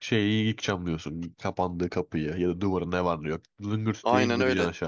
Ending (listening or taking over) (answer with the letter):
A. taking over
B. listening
A